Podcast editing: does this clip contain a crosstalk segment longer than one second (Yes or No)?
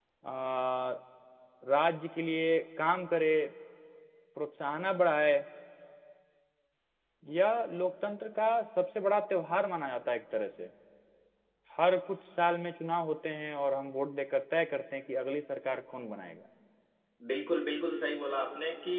No